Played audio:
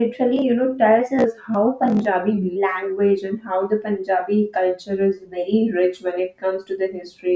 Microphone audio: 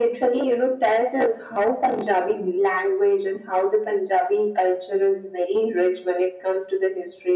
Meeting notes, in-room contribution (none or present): none